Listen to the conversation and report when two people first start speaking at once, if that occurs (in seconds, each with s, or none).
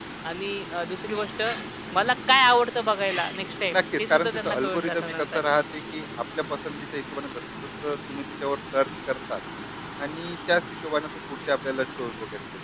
3.7 s